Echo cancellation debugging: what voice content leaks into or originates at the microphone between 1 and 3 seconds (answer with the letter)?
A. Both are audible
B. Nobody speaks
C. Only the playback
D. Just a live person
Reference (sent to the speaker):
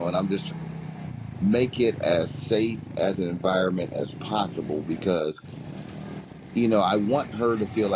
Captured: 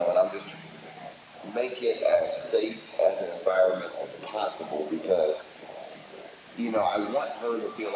C